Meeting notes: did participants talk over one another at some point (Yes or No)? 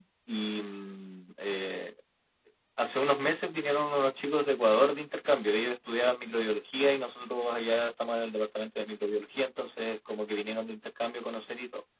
No